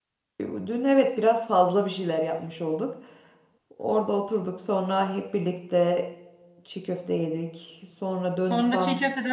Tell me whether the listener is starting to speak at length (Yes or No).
Yes